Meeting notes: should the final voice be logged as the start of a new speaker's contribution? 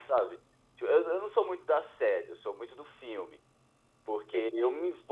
No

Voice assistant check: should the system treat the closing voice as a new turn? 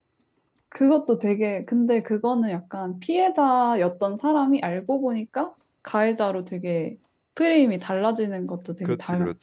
Yes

